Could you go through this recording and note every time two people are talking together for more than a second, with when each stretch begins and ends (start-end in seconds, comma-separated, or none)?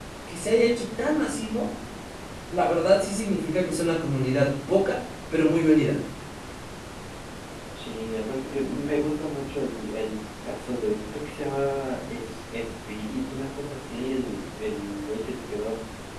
none